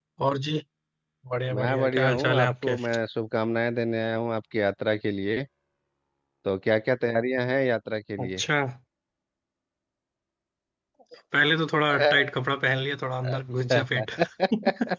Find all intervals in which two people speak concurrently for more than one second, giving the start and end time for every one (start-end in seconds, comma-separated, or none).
1.5-2.7